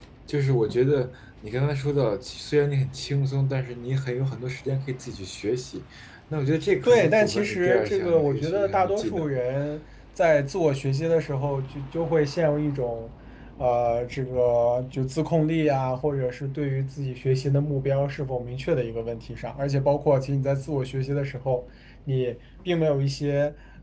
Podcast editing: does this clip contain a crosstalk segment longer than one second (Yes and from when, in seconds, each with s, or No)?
Yes, from 6.8 s